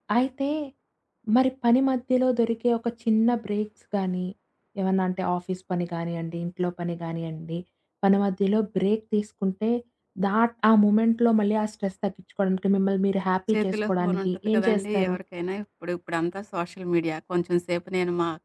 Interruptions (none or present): present